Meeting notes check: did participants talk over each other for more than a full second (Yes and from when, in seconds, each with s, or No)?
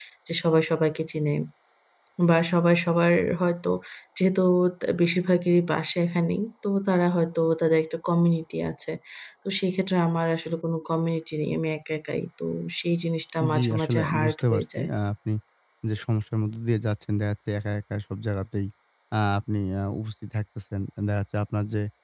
Yes, from 13.4 s